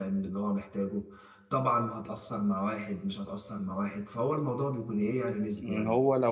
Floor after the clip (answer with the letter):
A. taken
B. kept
A